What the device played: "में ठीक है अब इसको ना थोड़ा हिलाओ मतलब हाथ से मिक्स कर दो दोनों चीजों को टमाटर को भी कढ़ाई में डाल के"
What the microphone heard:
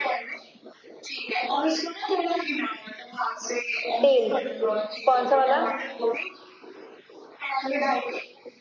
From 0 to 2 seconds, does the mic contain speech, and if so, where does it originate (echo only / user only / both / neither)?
echo only